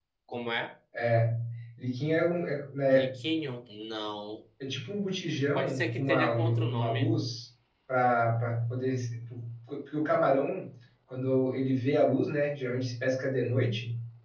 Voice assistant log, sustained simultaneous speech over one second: present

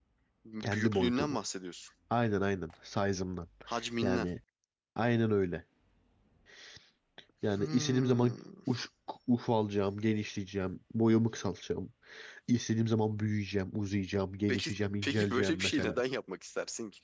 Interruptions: present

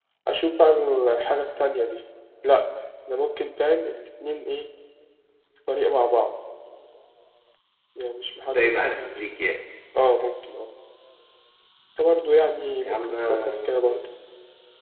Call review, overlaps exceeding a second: present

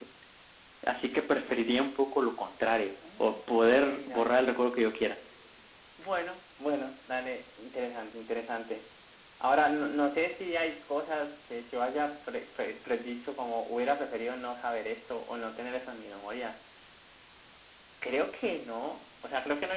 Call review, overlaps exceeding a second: present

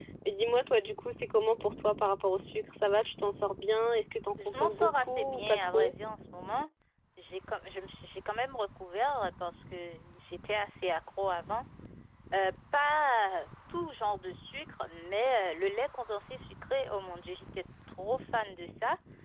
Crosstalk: present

